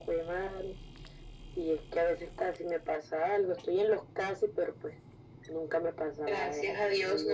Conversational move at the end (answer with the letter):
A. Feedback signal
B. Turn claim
B